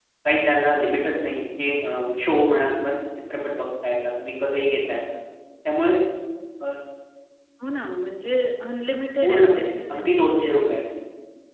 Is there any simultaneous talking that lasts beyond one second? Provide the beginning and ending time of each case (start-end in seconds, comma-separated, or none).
9.2-10.6